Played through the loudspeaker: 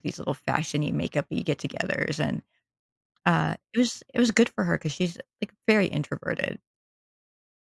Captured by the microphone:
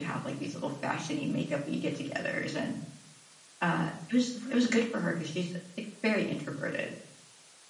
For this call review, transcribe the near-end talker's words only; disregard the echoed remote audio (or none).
Right.